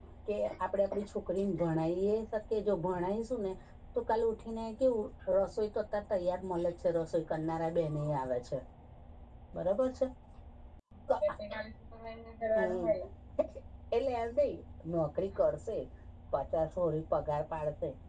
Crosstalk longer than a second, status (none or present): none